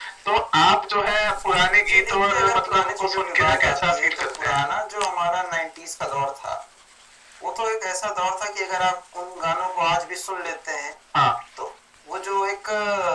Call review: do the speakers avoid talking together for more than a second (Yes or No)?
No